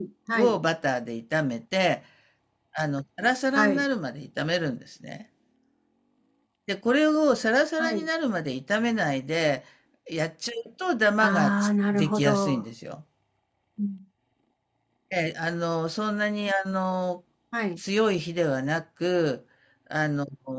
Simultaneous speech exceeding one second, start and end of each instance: 11.2-12.6

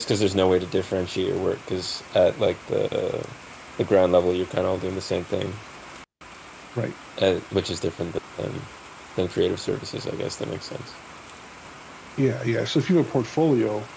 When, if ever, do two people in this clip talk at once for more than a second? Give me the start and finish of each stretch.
none

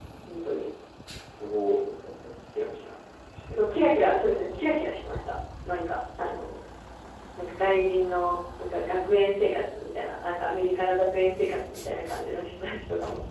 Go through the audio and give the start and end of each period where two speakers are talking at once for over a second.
none

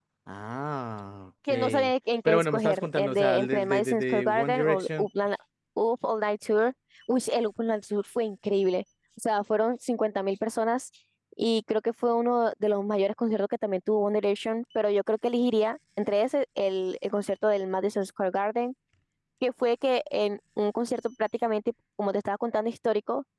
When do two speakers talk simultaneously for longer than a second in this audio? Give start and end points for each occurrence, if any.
2.2-5.1

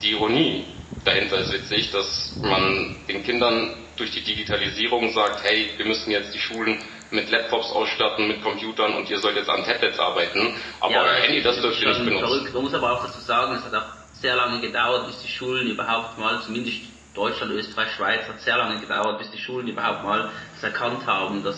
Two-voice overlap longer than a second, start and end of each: 10.9-12.4

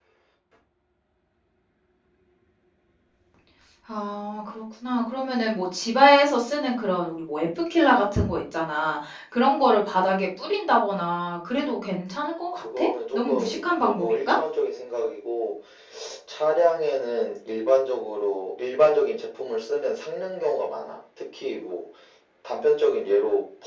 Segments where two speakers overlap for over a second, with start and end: 12.5-14.3

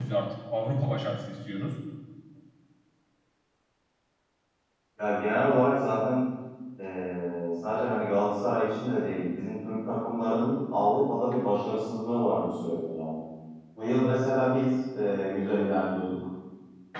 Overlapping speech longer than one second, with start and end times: none

